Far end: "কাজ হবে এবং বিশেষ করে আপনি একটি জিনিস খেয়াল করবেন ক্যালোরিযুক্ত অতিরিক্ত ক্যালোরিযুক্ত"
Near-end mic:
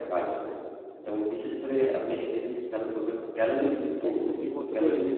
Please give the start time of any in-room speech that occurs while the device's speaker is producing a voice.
4.1 s

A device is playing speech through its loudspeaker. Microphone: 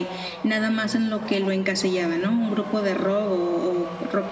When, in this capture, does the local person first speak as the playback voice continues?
none

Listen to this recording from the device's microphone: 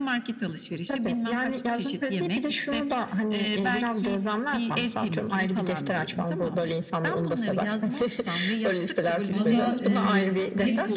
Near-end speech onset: 9.3 s

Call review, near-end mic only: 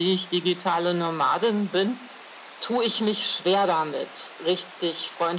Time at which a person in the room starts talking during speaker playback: none

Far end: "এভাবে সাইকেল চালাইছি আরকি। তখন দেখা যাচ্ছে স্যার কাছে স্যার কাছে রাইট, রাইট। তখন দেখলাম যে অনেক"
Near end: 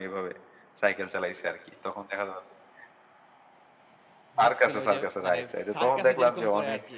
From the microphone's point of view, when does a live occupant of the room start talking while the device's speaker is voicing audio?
4.4 s

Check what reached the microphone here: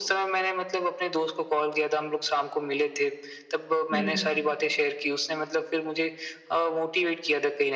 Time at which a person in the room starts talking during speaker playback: 3.9 s

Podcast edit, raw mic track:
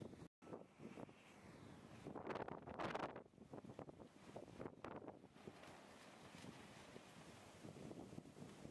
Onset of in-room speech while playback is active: none

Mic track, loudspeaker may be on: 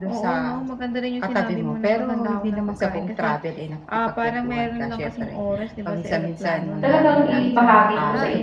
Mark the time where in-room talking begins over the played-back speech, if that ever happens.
6.8 s

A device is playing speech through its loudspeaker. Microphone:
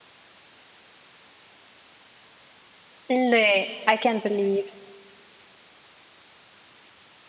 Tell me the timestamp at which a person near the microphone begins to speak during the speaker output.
3.1 s

